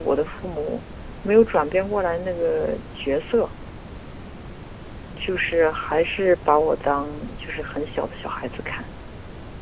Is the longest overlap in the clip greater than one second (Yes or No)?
No